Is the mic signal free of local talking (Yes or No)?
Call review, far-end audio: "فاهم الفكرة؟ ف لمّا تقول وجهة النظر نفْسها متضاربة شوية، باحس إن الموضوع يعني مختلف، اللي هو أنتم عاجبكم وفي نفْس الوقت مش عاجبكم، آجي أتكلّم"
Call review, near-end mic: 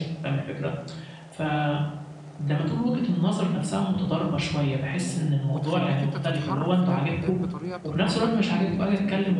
No